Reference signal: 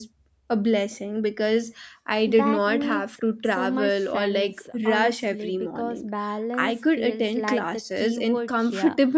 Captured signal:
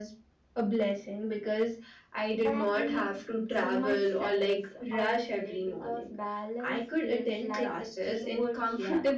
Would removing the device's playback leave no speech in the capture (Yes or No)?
Yes